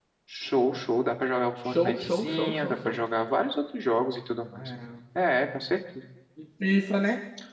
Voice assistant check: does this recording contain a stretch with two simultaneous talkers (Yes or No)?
Yes